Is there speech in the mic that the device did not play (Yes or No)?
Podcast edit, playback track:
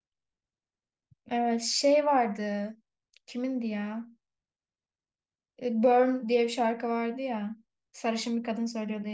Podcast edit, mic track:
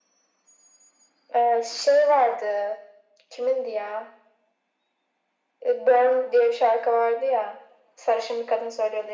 No